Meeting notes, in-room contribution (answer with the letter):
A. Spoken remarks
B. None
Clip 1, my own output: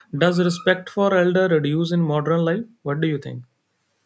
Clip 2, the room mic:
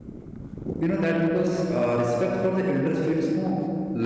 A